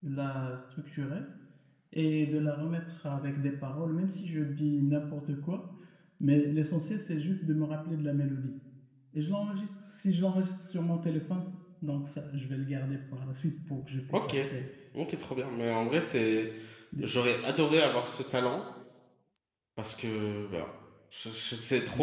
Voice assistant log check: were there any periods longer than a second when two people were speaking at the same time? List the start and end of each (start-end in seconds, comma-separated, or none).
none